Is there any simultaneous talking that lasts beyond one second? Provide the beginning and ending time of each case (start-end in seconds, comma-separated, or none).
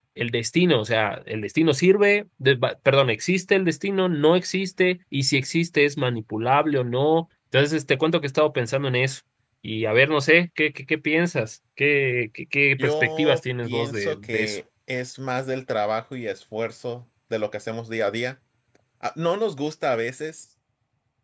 12.8-14.6